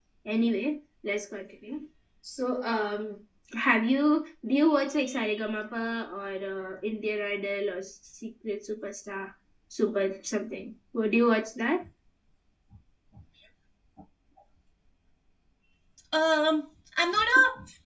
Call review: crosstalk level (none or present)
none